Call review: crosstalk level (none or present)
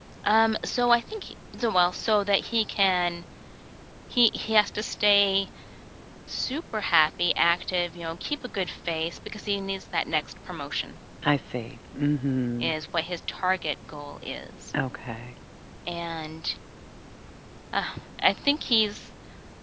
none